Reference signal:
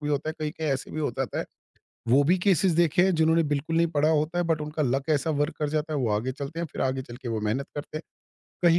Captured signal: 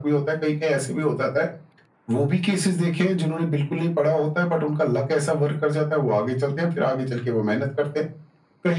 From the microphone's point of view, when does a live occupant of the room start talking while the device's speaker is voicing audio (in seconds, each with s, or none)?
none